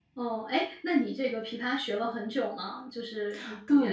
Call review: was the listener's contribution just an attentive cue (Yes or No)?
No